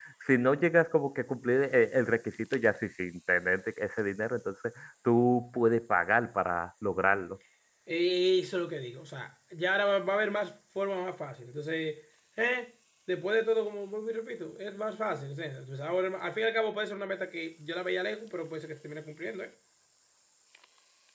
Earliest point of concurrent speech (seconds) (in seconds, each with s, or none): none